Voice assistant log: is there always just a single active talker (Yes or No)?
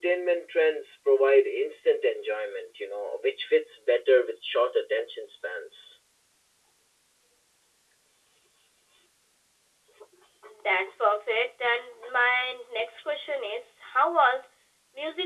Yes